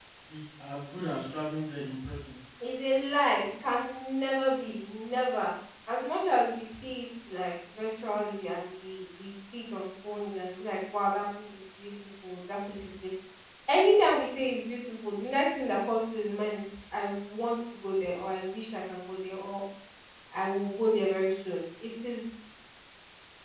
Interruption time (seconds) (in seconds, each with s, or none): none